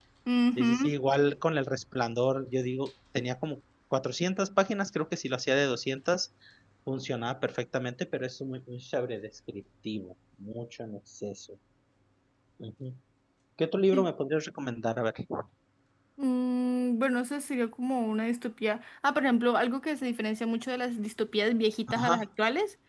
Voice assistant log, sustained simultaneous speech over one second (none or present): none